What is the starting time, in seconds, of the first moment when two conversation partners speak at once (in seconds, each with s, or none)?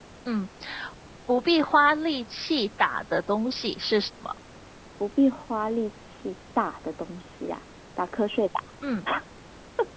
none